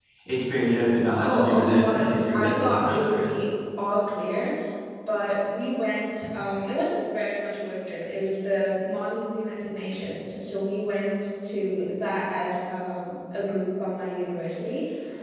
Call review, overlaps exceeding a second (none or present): present